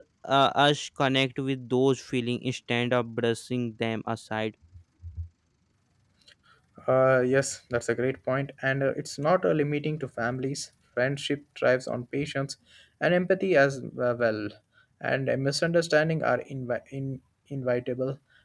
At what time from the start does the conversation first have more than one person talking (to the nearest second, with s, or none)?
none